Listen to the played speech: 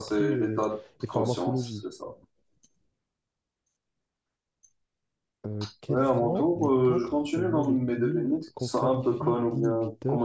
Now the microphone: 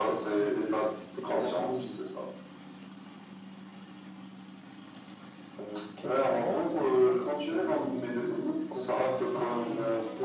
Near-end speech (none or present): none